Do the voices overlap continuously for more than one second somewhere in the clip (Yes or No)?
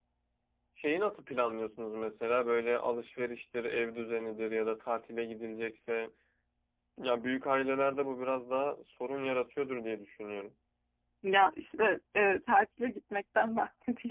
No